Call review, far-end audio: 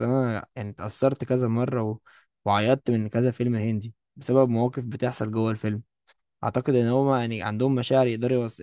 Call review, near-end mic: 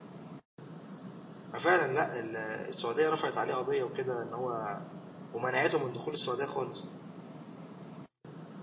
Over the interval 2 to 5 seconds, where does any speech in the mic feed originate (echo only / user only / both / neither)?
user only